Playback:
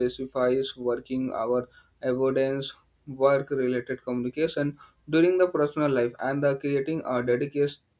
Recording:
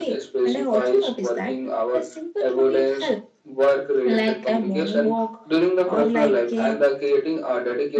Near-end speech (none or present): present